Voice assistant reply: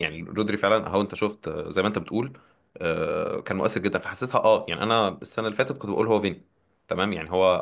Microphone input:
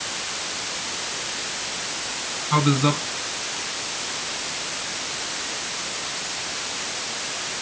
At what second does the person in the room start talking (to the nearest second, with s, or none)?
3 s